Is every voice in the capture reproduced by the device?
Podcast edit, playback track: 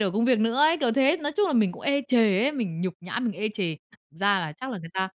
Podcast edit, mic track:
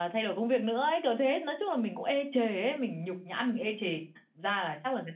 Yes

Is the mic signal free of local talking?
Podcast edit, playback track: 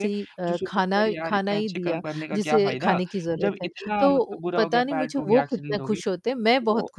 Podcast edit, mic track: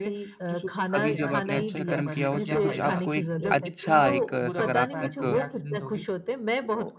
No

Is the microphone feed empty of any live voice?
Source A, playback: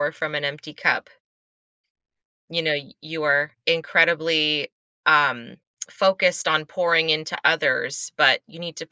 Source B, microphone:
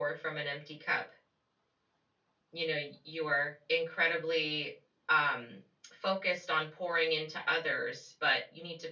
Yes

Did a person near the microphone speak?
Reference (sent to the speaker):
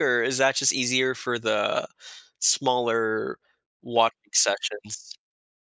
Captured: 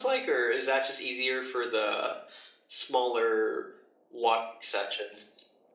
No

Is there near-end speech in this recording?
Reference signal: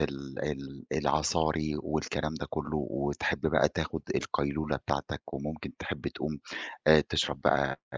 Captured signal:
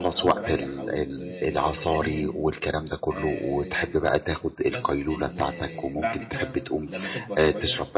Yes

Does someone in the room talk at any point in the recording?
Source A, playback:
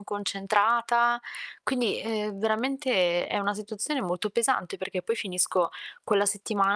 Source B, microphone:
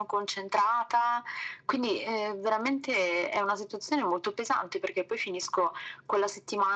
No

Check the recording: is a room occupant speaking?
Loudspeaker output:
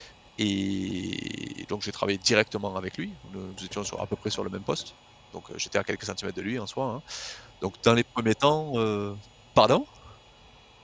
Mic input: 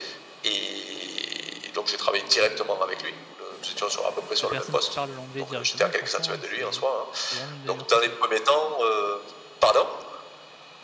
Yes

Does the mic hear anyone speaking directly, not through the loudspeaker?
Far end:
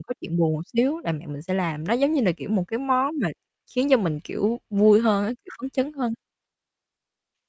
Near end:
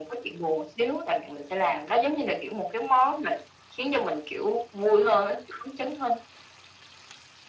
No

